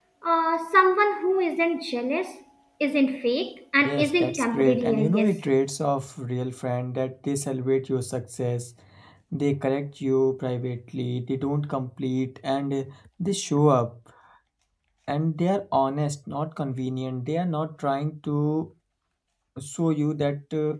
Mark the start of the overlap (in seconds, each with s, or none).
3.8 s